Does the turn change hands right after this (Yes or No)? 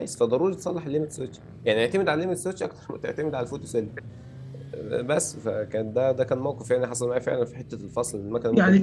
Yes